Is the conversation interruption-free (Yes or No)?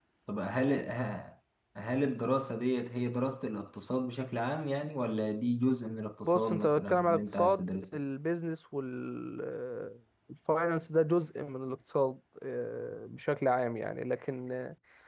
No